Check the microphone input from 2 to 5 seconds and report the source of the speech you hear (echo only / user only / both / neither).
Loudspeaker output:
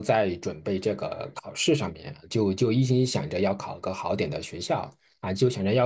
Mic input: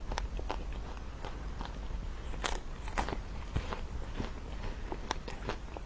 neither